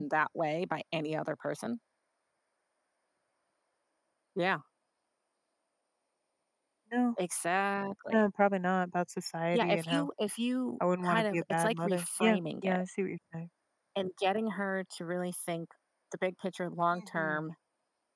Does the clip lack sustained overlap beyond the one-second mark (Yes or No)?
No